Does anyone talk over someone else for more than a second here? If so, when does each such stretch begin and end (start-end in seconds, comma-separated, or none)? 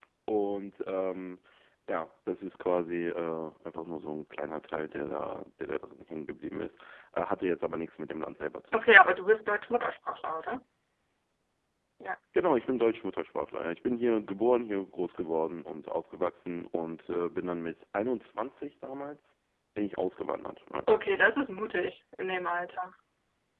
none